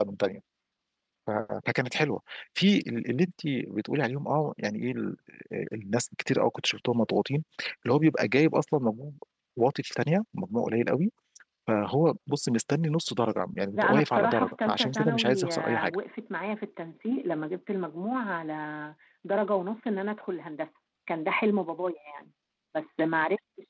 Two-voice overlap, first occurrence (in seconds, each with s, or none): 13.7 s